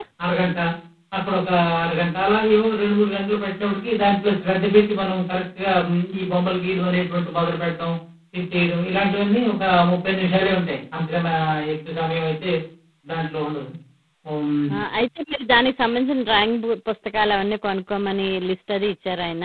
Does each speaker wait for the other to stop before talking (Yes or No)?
Yes